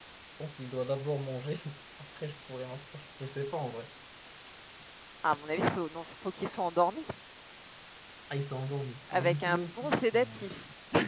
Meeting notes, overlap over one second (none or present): present